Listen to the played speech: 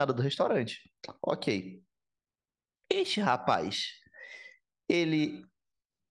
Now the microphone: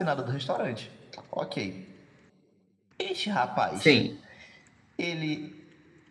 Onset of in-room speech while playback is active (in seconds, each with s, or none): 3.7 s